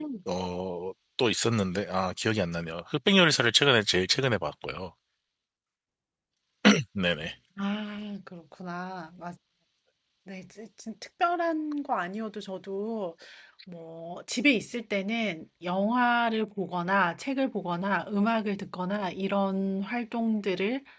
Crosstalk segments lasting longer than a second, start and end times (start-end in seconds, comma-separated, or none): none